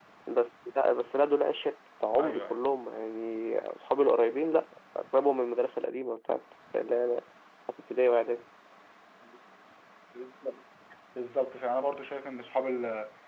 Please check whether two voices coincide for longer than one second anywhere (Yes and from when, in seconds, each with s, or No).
No